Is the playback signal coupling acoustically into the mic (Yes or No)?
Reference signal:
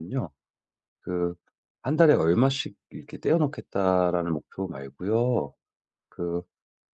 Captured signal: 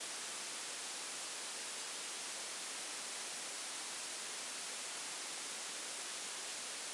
No